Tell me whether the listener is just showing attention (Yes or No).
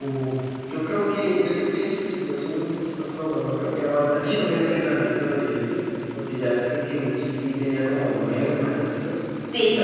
Yes